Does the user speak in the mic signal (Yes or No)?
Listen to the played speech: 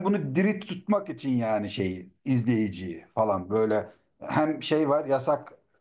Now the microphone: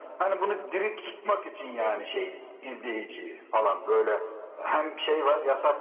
Yes